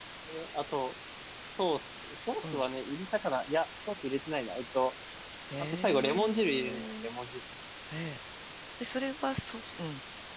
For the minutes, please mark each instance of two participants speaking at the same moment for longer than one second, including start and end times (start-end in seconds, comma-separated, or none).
5.7-7.1